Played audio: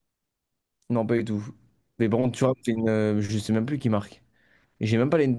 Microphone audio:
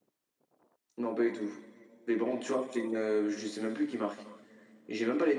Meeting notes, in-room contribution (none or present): none